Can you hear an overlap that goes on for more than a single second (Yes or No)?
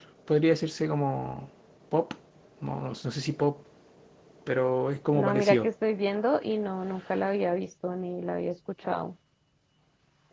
No